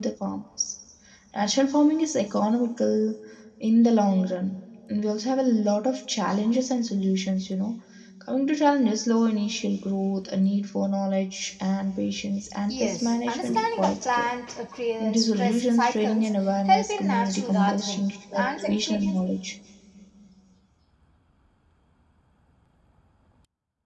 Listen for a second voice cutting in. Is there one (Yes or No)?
Yes